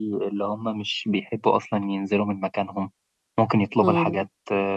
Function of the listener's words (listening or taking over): listening